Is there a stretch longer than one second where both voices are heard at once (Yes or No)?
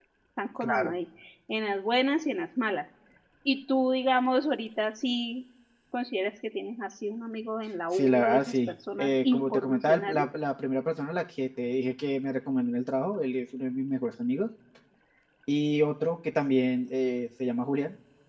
Yes